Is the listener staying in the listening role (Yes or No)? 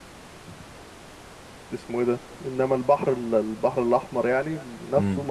Yes